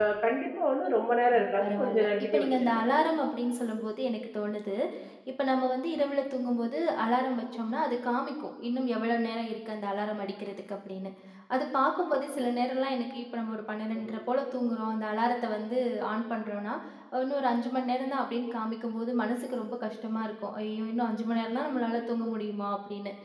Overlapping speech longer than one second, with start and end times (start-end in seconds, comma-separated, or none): 1.3-2.8